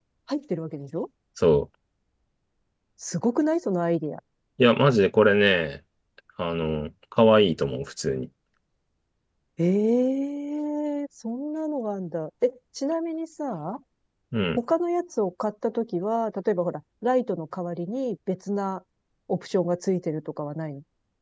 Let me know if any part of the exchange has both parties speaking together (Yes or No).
No